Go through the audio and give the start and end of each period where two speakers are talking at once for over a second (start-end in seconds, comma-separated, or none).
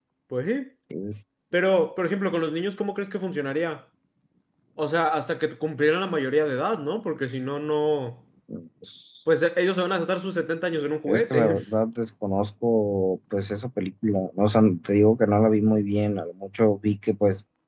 none